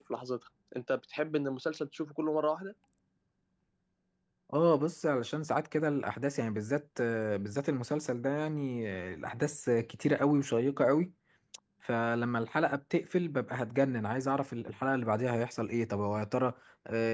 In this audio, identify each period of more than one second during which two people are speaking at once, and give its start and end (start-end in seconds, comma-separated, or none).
none